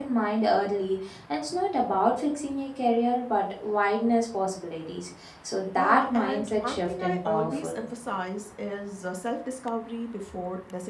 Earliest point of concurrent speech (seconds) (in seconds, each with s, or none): 5.8 s